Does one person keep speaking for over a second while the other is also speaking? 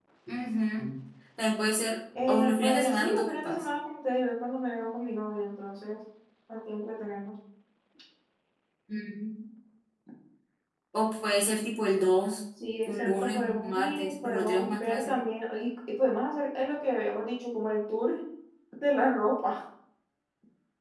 Yes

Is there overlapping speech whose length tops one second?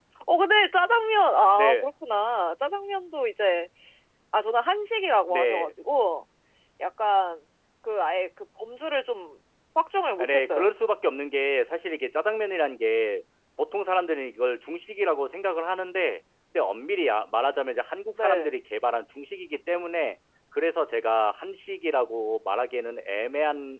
No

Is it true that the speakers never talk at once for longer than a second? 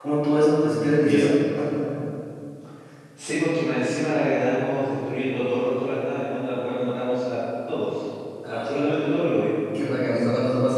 Yes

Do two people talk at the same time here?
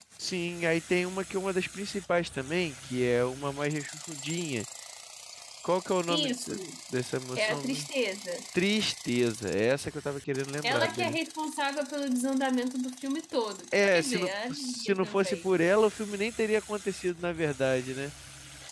Yes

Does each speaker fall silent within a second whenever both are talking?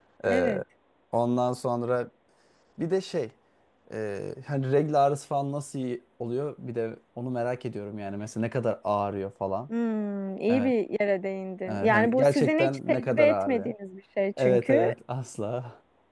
No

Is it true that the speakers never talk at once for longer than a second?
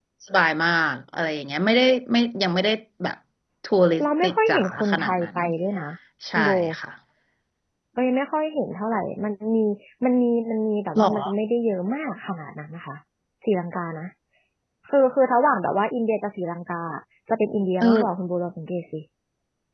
No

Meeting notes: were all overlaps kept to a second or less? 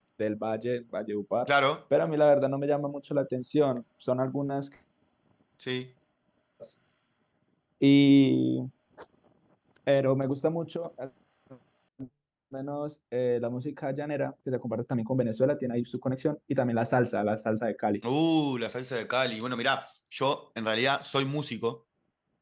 Yes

